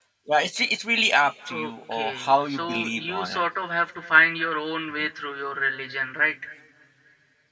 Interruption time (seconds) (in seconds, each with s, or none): 1.5 s